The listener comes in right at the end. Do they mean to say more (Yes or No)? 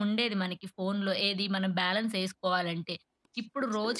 No